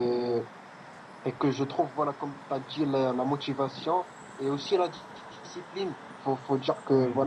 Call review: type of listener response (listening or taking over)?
listening